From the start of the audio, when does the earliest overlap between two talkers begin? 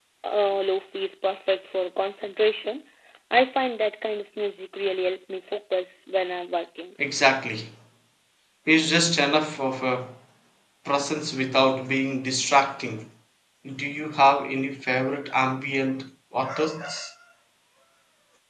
none

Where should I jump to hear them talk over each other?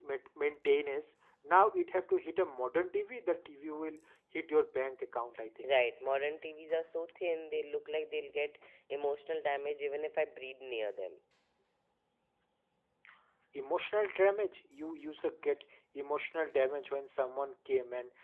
none

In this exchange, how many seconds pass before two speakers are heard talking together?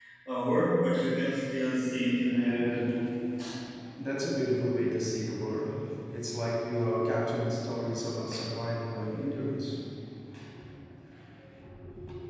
none

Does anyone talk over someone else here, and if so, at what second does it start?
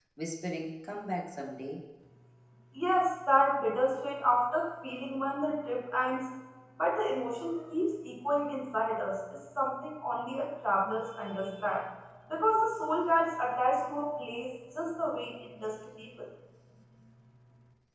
none

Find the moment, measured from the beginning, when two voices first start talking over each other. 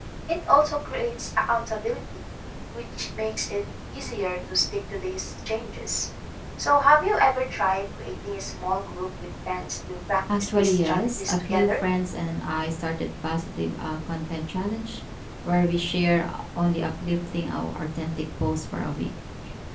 10.3 s

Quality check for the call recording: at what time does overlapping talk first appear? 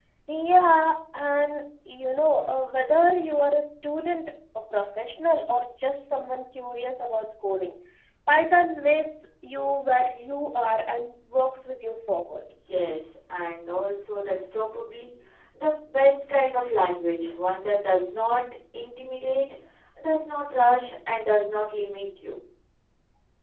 none

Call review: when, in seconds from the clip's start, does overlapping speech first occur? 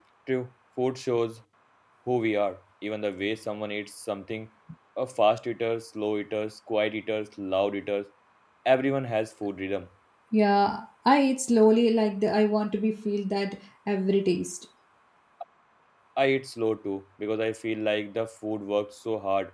none

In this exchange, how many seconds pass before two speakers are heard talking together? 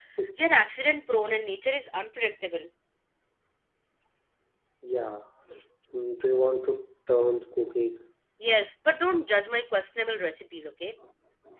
none

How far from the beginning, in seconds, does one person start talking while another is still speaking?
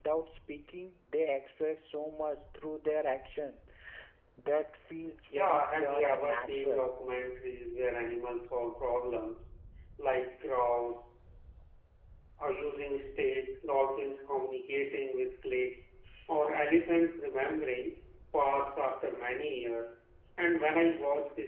5.3 s

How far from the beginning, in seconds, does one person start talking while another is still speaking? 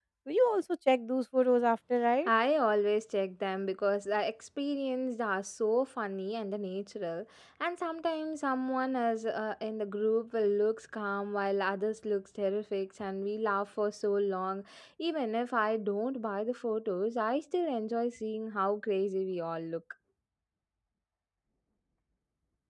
none

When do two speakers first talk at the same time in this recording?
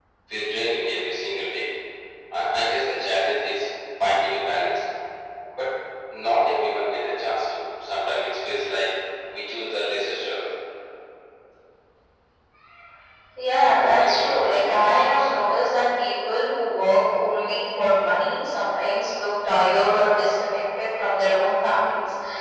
13.6 s

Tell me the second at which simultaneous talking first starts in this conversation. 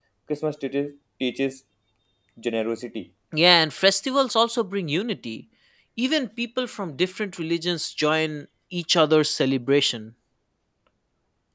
none

